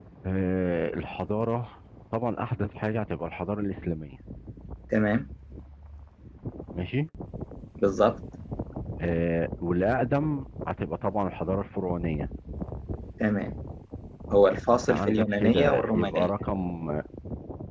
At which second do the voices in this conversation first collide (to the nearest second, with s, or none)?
15 s